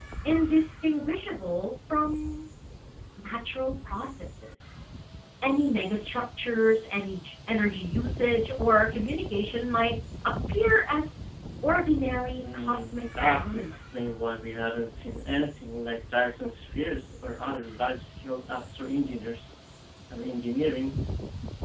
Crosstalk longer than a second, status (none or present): present